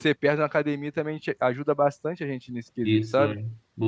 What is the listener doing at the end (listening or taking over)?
taking over